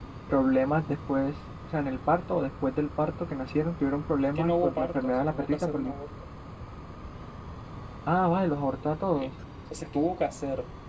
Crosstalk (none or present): present